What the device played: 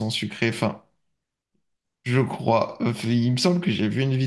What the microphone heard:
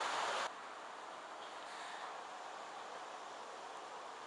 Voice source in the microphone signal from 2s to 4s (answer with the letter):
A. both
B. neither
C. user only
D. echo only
B